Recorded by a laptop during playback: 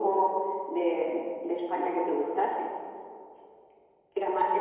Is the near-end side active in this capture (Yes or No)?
No